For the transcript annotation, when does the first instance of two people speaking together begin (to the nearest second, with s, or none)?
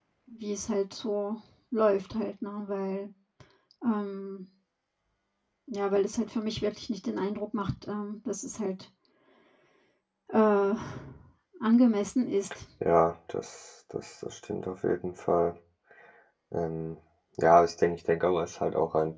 none